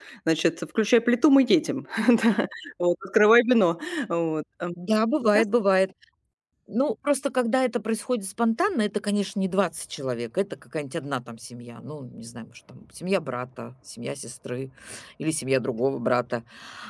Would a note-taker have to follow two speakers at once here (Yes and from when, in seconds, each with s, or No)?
No